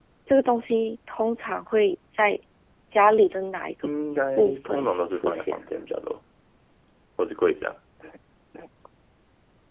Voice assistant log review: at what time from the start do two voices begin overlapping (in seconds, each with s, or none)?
4.4 s